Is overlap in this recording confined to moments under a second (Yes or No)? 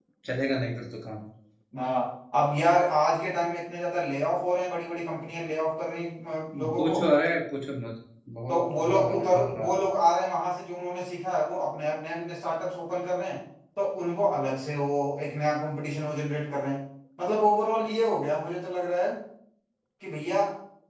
No